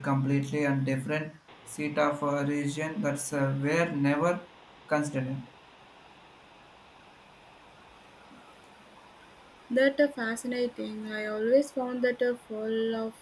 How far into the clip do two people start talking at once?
none

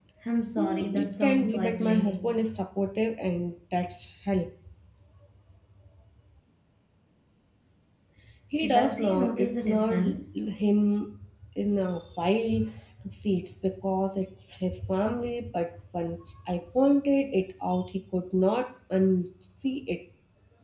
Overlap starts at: 0.6 s

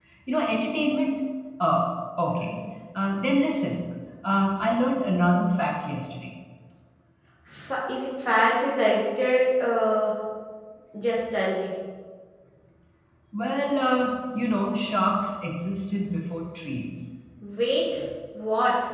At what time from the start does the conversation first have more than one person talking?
none

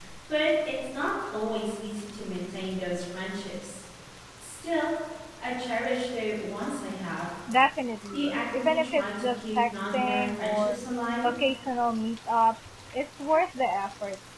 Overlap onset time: 8.1 s

